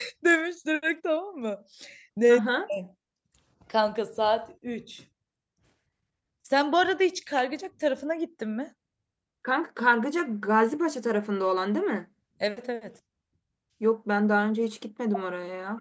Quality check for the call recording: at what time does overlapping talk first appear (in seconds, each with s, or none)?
none